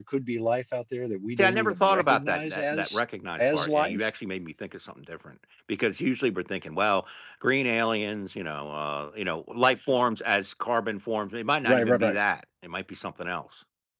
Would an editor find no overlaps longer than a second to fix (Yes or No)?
No